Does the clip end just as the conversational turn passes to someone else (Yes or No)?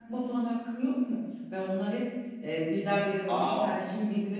No